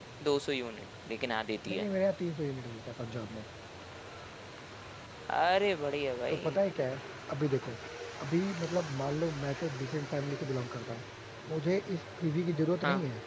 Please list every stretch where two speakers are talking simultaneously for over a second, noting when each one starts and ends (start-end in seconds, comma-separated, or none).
none